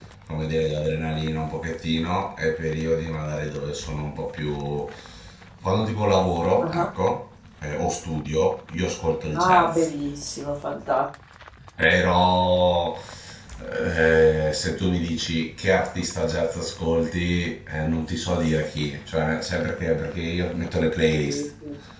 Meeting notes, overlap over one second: none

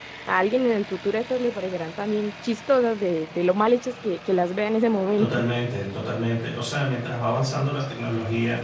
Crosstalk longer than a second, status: none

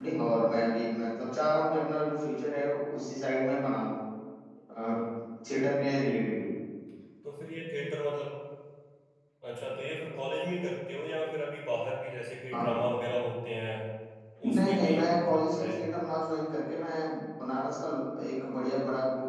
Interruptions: present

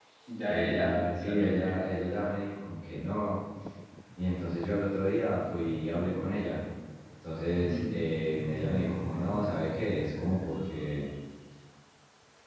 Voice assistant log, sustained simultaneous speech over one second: present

